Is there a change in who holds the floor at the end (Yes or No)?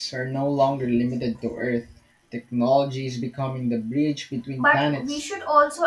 Yes